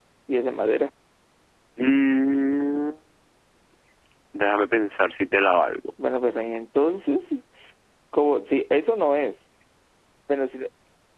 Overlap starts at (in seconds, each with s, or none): none